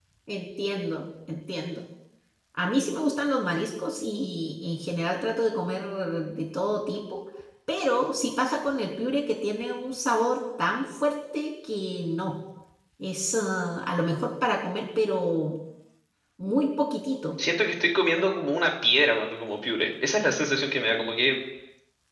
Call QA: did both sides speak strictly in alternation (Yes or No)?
Yes